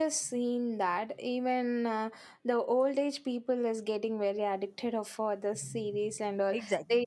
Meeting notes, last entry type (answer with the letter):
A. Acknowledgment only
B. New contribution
B